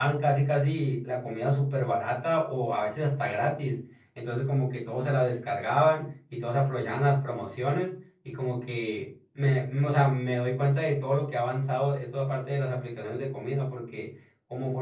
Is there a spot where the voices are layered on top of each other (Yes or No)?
No